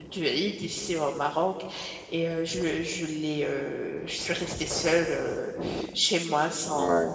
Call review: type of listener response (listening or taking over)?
listening